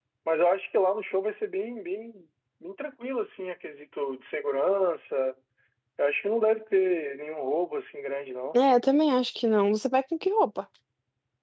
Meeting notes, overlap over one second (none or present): none